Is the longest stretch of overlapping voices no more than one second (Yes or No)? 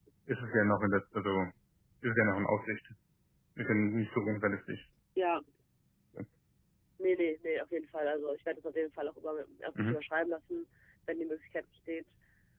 Yes